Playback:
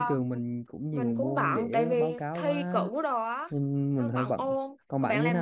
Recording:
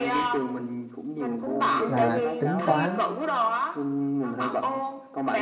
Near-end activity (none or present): present